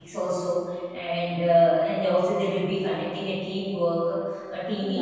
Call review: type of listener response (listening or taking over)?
listening